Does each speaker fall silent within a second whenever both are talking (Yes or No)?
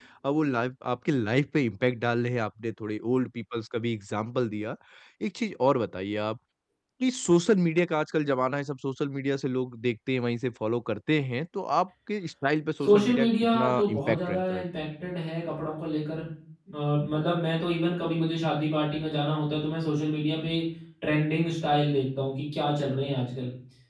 No